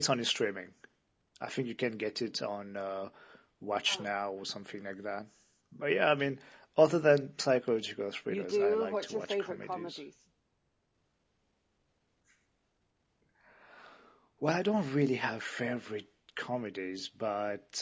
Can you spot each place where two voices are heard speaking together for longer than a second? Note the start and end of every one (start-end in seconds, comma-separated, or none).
8.3-10.0